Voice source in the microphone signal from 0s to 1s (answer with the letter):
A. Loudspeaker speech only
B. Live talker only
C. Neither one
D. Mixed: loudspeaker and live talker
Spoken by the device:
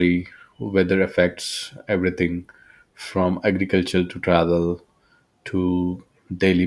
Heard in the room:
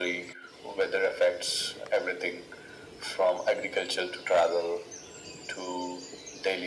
A